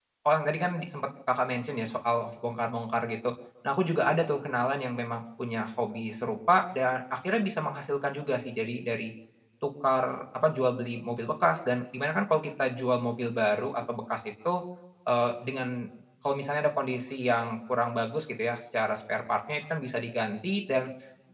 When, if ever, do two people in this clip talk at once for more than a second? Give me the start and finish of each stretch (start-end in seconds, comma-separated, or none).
none